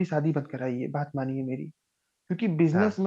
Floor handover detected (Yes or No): No